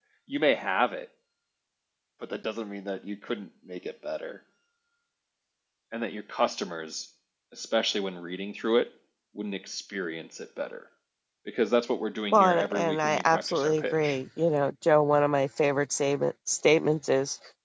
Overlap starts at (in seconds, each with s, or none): 12.3 s